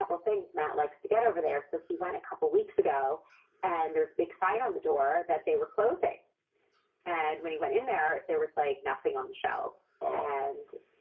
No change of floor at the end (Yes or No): Yes